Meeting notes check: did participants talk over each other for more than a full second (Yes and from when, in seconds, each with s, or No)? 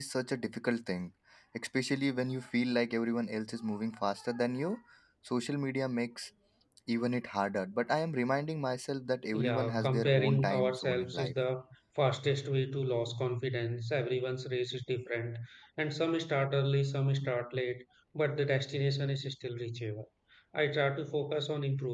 Yes, from 9.3 s